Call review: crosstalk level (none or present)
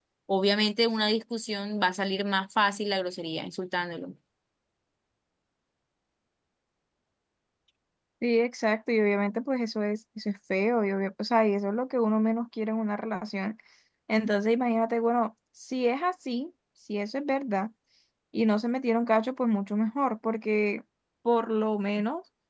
none